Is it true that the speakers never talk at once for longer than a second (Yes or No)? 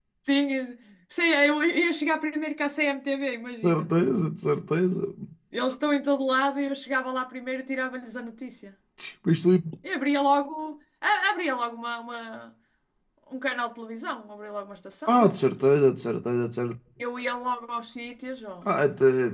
Yes